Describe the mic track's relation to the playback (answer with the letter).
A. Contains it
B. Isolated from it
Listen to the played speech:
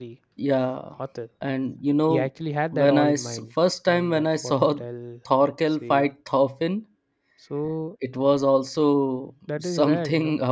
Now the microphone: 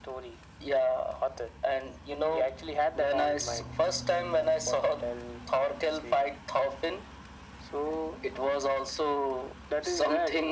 A